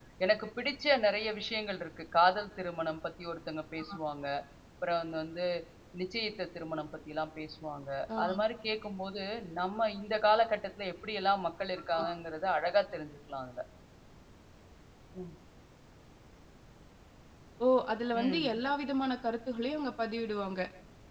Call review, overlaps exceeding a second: none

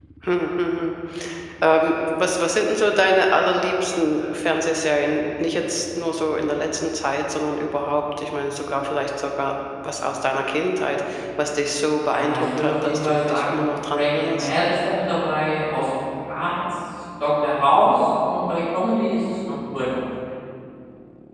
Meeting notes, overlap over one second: present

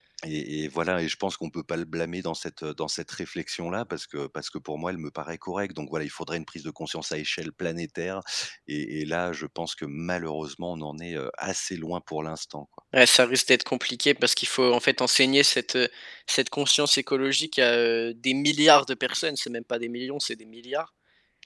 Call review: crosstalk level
none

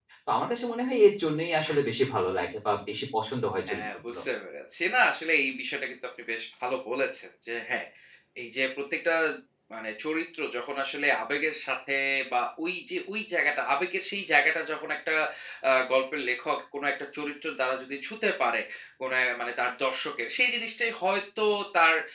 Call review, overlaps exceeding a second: none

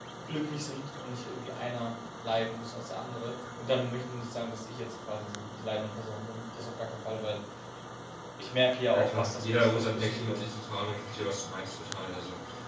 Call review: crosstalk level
present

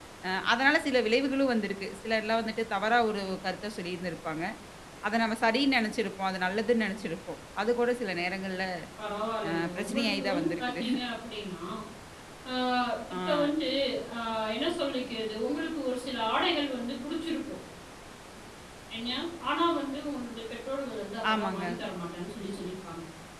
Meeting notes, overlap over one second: present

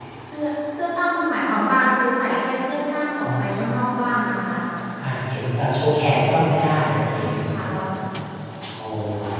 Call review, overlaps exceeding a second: none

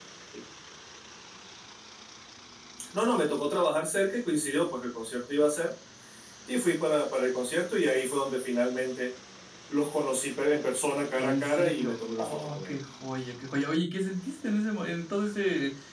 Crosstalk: present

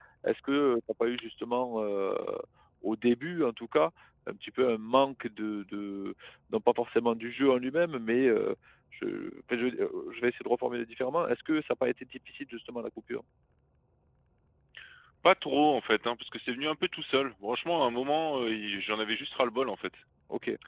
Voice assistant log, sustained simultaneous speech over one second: none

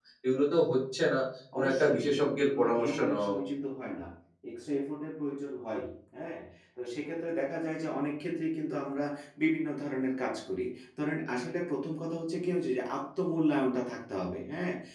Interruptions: present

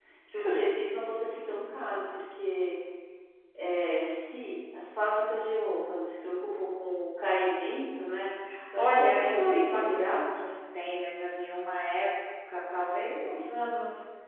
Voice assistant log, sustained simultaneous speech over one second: present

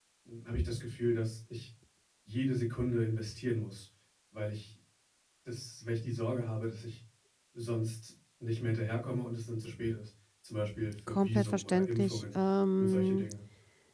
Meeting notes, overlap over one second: present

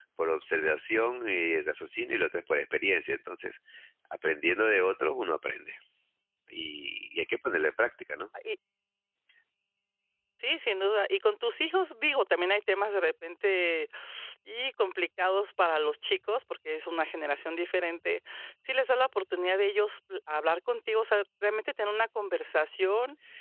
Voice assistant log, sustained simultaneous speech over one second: none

